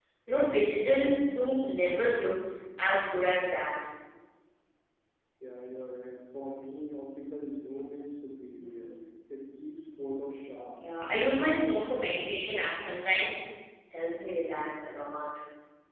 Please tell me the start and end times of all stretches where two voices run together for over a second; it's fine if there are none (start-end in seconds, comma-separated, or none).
none